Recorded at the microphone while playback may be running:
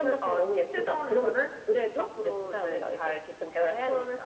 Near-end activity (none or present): none